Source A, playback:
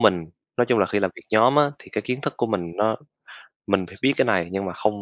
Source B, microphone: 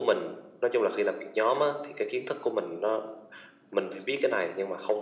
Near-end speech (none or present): none